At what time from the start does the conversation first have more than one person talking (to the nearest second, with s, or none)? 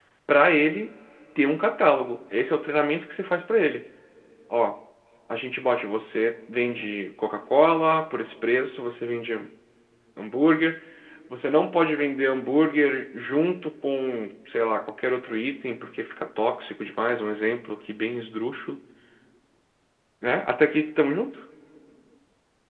none